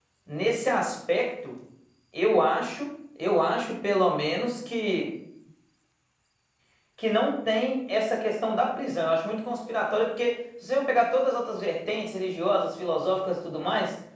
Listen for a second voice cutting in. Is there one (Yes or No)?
No